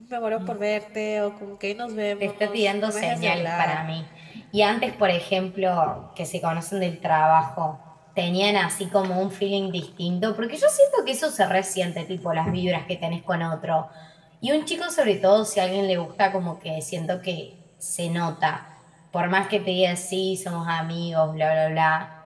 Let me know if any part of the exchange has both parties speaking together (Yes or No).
Yes